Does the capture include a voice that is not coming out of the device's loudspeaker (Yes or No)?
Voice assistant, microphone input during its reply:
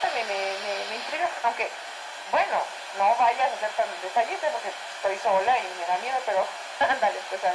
No